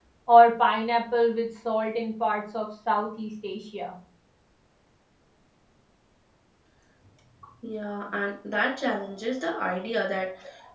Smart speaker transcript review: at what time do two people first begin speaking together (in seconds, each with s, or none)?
none